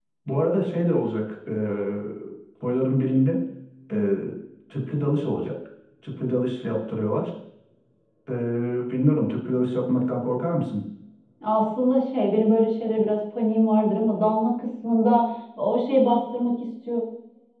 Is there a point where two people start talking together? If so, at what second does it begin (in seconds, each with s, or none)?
none